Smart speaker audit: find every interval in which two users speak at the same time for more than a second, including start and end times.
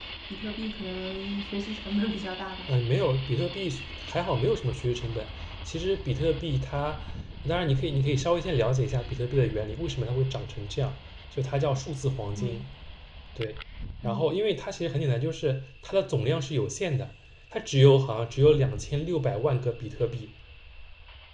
none

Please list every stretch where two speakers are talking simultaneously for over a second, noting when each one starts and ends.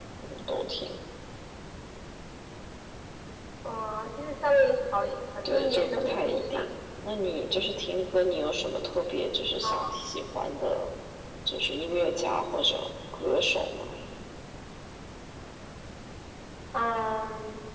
5.5-6.7

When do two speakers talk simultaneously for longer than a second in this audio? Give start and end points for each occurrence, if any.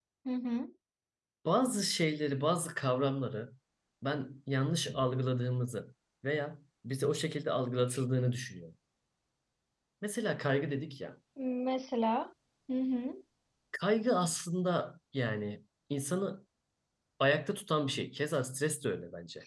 none

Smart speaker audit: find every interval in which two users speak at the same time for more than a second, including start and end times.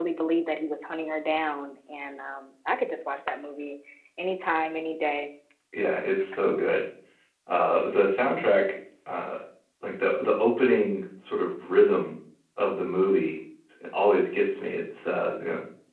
none

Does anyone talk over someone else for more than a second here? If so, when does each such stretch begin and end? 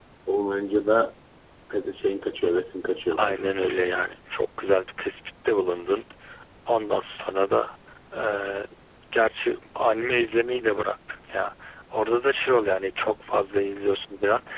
none

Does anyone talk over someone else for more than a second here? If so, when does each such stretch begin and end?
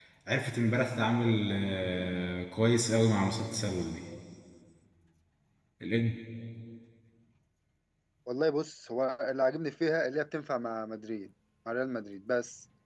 none

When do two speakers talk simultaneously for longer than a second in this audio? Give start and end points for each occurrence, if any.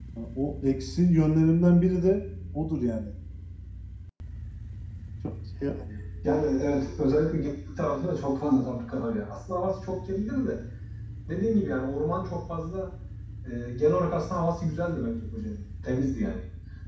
none

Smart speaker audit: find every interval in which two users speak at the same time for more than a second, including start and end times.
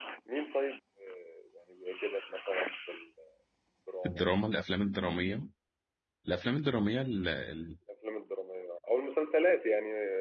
none

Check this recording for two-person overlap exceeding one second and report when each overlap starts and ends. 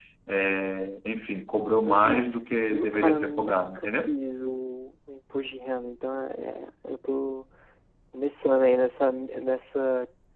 2.7-4.1

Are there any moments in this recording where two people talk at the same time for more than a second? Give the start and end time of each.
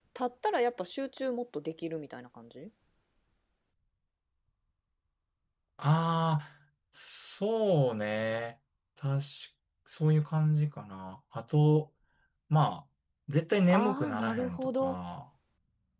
13.7-15.0

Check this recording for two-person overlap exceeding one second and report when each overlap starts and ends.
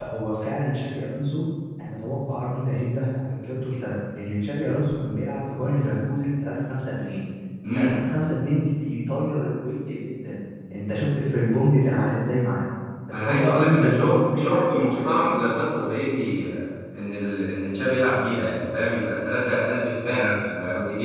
13.1-15.3

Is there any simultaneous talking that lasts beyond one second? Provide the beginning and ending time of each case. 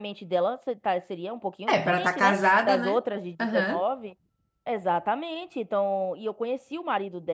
1.7-3.0

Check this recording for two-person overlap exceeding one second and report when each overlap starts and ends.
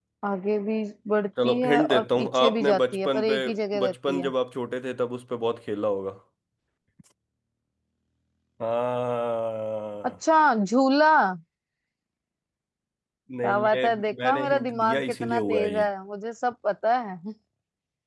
1.4-3.4, 13.4-15.8

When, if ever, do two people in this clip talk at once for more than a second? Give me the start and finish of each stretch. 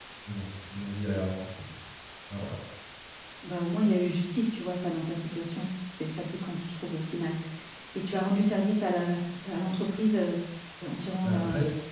none

